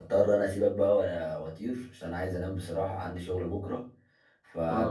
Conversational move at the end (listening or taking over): listening